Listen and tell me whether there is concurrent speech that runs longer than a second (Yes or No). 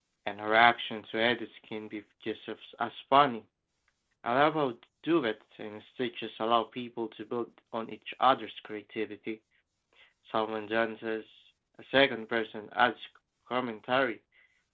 No